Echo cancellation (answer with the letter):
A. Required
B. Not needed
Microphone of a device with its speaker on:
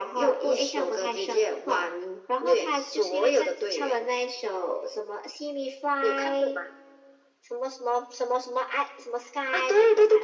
A